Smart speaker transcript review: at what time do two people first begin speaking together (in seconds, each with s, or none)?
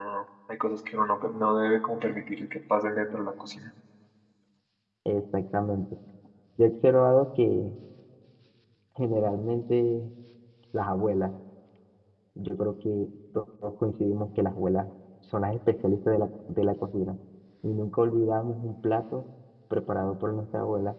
none